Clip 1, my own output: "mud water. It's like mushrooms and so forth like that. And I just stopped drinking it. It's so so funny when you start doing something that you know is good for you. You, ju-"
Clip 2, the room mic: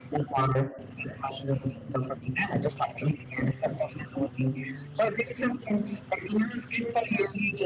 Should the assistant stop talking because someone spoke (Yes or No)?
No